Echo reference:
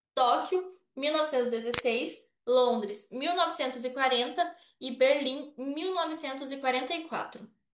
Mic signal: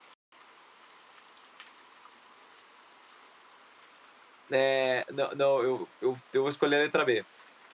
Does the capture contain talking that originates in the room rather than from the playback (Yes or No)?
Yes